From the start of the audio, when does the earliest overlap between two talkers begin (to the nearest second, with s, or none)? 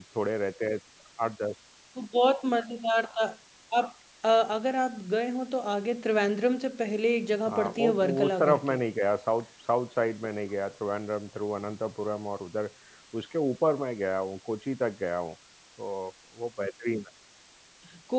7 s